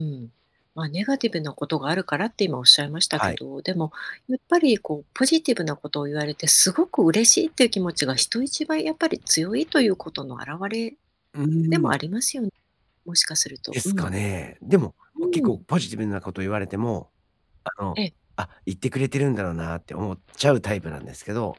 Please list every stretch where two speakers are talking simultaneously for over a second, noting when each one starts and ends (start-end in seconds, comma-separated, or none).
none